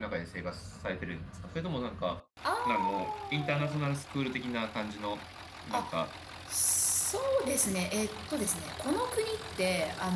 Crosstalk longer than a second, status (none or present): present